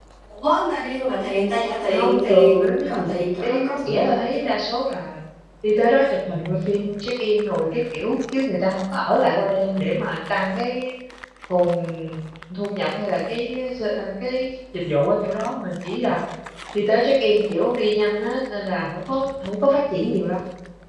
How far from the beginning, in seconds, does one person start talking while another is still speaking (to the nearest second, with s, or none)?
2 s